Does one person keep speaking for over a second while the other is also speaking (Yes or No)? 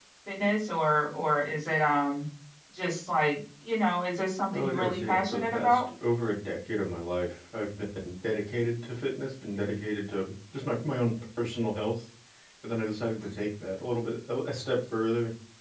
Yes